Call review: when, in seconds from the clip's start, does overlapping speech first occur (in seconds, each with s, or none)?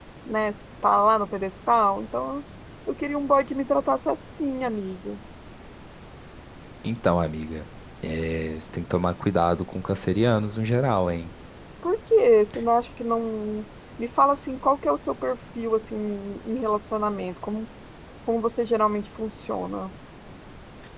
none